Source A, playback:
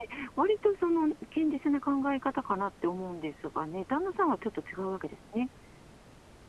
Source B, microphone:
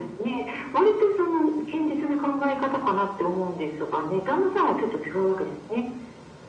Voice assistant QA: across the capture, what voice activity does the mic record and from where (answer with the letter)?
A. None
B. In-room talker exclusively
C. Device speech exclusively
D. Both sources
C